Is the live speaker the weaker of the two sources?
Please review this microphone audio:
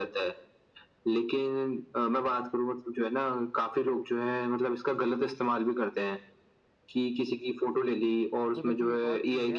Yes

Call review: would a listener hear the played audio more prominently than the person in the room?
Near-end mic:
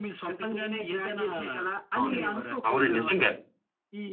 No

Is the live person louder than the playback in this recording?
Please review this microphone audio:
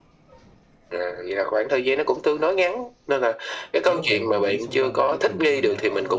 No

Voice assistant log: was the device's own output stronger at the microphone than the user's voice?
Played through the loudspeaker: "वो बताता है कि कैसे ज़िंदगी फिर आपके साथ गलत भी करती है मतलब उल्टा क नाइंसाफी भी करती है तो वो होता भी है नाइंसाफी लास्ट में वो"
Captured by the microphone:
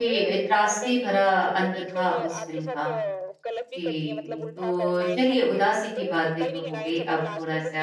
No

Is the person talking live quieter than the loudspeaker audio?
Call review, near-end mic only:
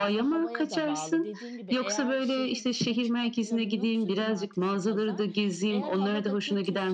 Yes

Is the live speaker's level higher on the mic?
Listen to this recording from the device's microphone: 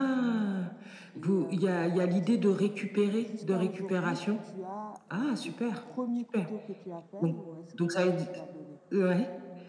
No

